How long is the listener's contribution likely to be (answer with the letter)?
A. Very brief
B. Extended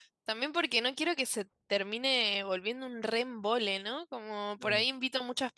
A